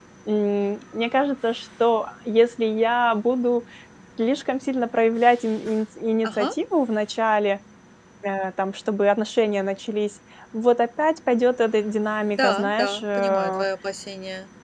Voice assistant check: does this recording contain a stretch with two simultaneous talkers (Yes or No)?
Yes